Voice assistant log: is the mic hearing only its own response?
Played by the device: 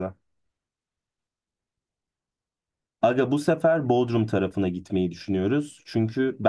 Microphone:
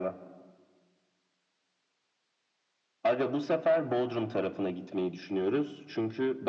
Yes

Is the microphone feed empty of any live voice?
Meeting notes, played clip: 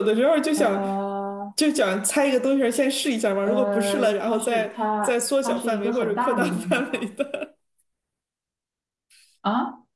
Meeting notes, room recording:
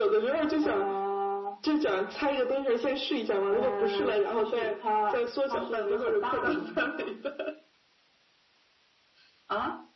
Yes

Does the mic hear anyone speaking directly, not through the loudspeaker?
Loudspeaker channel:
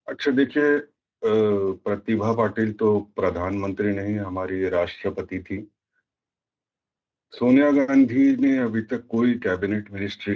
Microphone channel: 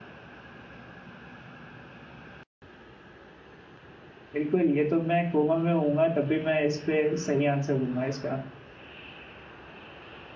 Yes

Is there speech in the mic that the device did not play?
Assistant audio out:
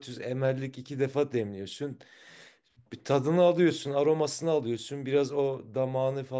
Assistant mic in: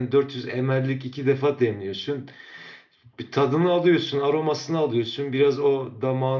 No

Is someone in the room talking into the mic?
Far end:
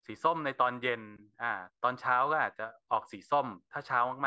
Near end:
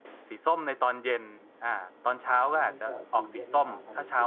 Yes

